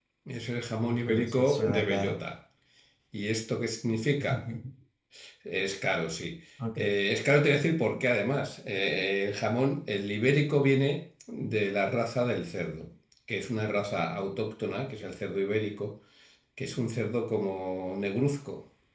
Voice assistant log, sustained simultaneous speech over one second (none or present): present